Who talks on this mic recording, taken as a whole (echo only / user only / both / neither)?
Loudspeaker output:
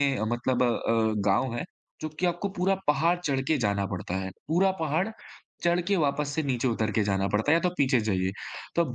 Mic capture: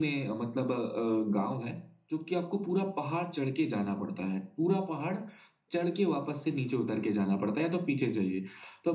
echo only